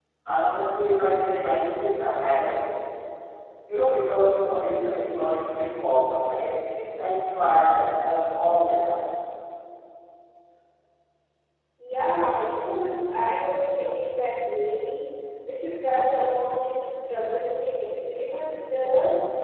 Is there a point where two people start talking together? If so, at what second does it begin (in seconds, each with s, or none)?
none